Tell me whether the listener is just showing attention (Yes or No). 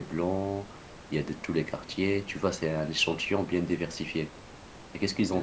Yes